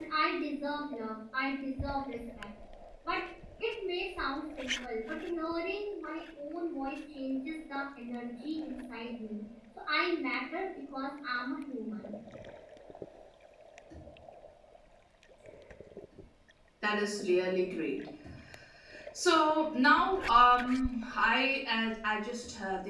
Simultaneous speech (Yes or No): No